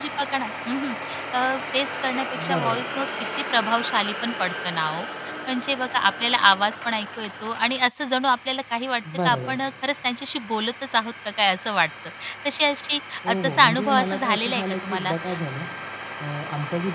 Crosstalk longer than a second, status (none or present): present